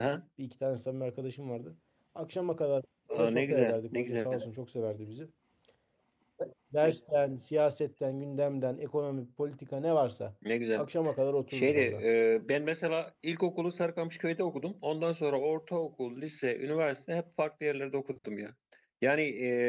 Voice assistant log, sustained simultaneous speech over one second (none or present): present